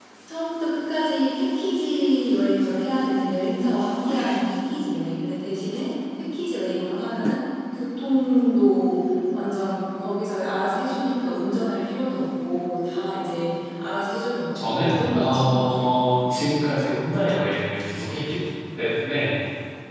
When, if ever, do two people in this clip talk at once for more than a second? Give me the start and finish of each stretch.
14.6-15.8

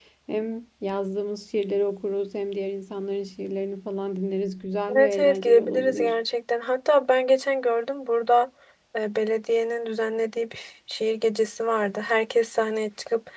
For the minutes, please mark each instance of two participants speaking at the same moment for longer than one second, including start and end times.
5.0-6.2

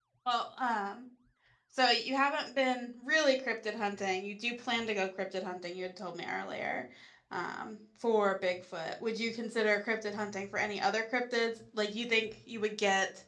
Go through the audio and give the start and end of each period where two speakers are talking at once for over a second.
none

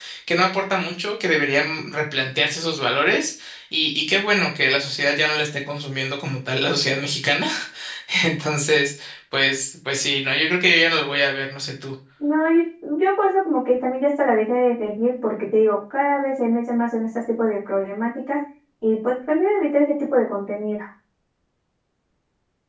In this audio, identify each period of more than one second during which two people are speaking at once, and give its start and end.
none

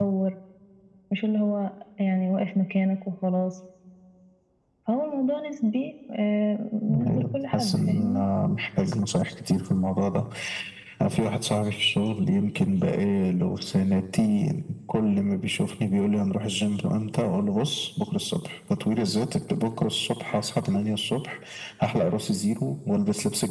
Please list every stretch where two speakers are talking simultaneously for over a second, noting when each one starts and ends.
6.9-8.2

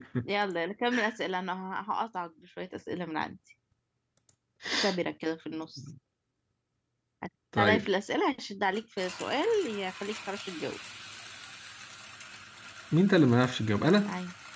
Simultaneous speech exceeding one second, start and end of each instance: none

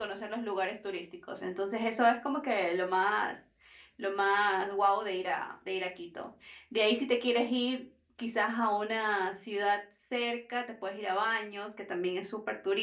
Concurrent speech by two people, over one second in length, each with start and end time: none

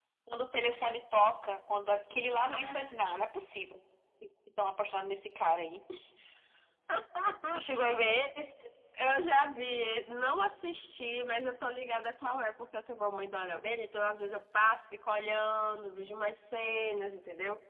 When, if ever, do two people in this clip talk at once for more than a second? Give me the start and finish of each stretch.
none

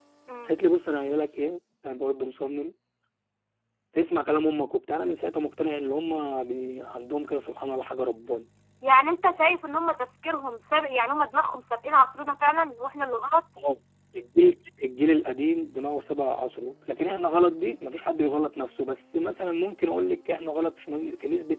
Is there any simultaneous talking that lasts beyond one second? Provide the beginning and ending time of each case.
none

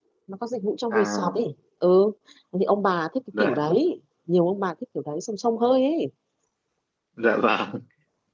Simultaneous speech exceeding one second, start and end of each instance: none

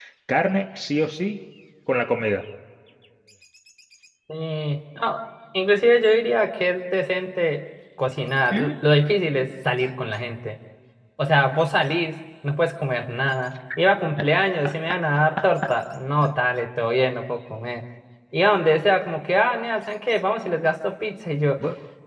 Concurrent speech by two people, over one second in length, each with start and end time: none

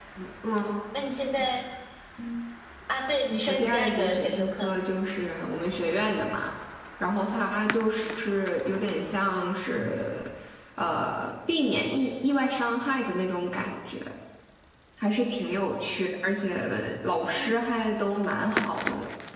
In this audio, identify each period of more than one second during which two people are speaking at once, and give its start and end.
3.5-4.7

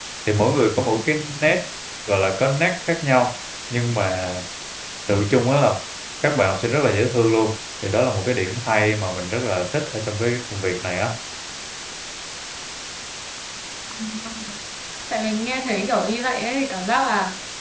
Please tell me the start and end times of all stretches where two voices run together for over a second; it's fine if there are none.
none

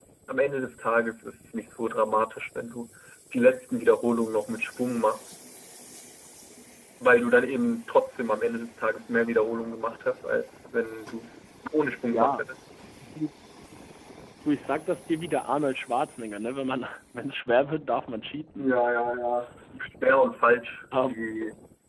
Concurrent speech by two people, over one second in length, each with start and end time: none

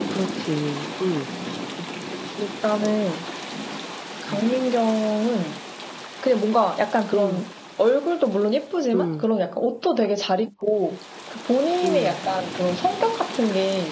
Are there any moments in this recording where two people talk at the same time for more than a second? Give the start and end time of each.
none

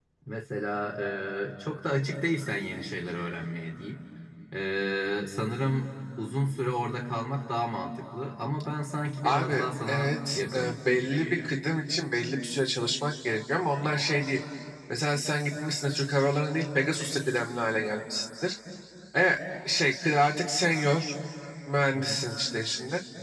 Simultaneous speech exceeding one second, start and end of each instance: 9.2-11.5

